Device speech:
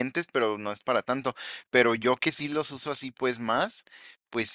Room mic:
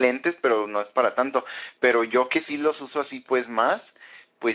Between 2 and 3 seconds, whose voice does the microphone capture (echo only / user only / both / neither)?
echo only